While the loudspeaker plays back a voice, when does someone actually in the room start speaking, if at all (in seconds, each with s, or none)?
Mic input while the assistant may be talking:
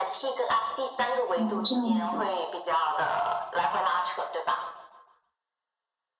1.4 s